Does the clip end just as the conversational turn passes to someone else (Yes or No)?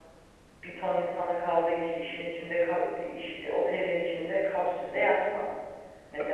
No